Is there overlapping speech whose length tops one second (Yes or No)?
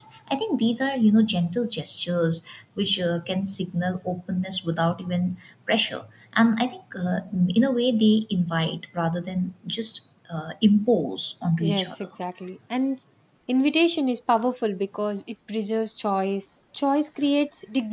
No